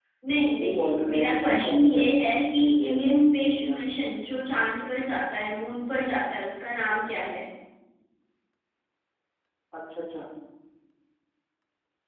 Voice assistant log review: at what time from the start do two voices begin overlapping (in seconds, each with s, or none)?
0.6 s